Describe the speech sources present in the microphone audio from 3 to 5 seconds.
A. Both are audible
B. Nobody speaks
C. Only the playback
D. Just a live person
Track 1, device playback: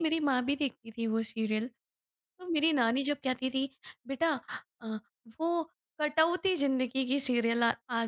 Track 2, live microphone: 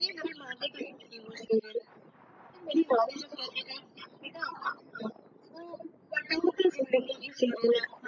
C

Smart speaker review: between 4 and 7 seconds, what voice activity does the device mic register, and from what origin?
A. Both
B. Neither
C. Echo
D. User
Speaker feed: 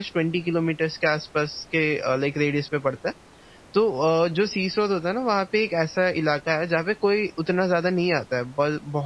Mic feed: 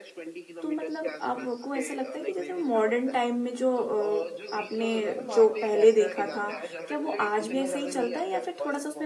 A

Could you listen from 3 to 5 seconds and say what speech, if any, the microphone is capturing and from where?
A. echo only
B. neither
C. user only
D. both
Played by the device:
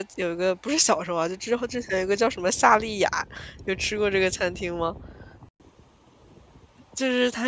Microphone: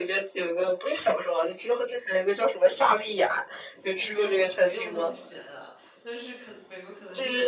D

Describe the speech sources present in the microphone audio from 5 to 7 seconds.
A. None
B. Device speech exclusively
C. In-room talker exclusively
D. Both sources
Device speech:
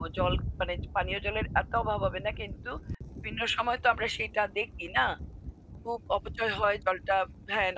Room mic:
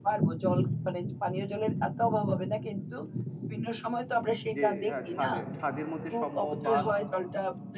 D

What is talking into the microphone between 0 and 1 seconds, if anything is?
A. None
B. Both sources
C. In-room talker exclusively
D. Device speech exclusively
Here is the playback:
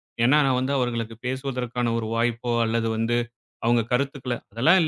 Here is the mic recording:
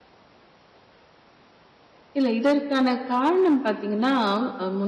A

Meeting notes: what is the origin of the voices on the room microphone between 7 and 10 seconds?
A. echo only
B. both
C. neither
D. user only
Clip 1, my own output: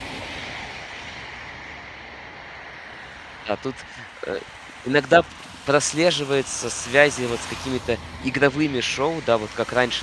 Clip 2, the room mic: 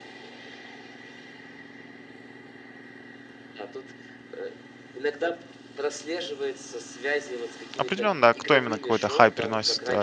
B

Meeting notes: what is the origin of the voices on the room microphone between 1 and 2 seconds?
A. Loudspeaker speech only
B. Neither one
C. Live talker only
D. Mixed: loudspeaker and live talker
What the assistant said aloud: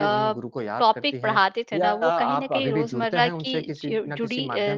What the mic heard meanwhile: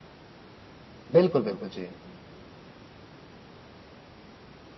C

